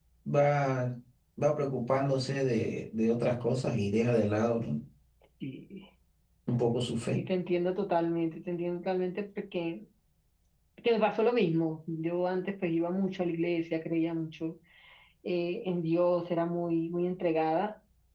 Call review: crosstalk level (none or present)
none